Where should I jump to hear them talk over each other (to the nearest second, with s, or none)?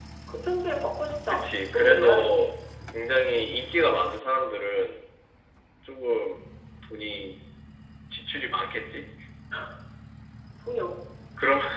1 s